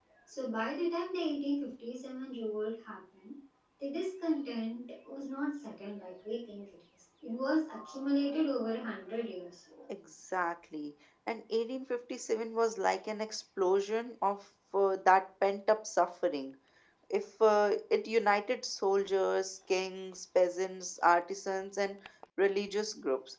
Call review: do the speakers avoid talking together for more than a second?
Yes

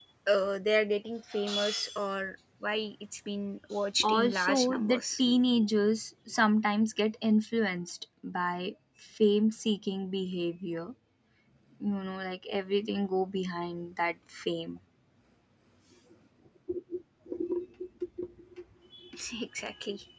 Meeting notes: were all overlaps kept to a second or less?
No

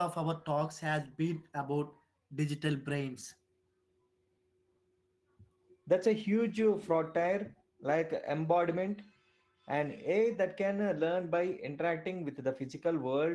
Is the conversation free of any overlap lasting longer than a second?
Yes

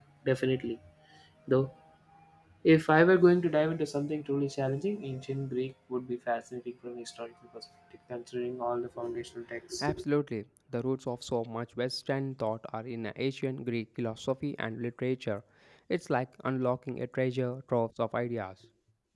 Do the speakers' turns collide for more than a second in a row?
No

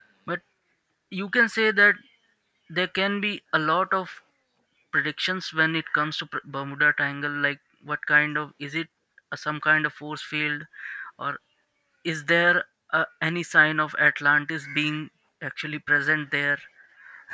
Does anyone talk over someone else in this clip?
No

